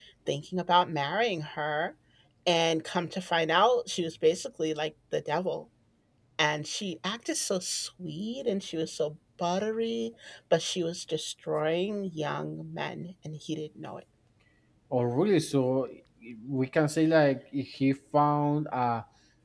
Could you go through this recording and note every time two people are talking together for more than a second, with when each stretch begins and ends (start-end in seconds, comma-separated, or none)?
none